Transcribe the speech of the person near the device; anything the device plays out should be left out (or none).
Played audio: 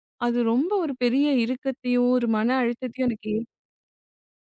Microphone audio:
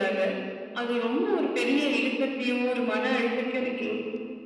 none